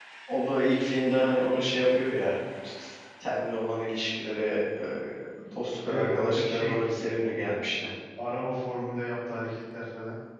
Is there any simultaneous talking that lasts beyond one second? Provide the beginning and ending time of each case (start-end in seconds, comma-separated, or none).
5.8-7.3